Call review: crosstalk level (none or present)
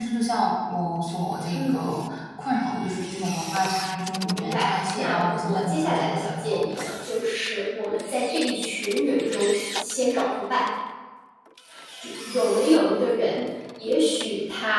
present